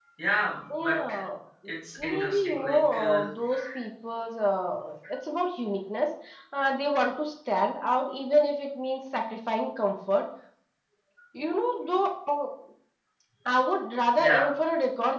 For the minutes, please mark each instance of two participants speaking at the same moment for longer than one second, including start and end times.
2.0-3.2

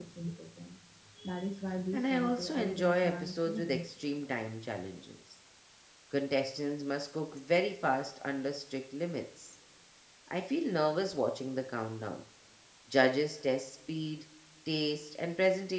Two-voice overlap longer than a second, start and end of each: 1.9-3.9

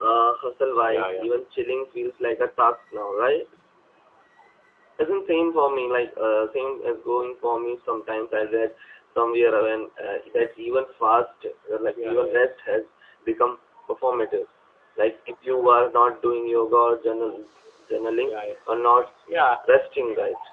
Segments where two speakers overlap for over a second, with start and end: none

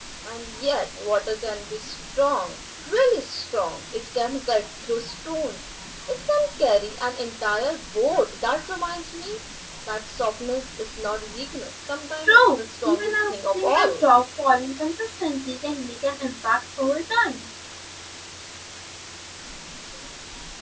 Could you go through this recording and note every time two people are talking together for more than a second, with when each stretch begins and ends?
12.2-14.0

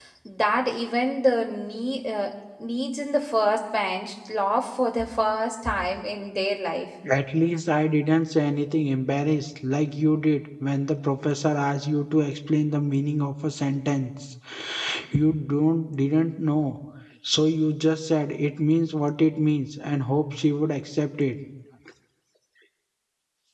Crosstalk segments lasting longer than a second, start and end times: none

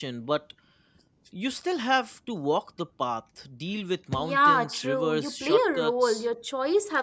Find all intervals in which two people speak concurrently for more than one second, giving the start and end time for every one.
4.2-6.3

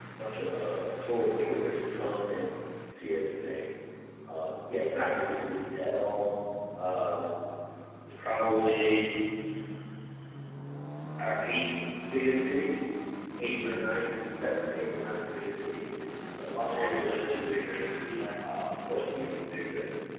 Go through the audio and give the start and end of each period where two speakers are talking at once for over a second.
16.7-17.9

